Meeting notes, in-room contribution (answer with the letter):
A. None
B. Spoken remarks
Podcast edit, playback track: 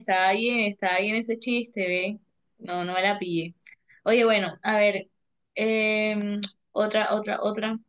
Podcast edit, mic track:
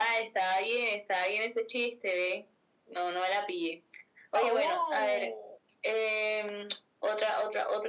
B